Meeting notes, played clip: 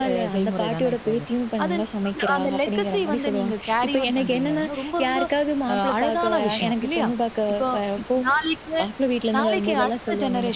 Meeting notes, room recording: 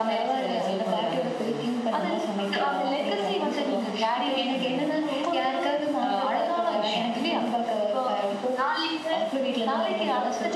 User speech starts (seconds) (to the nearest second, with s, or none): none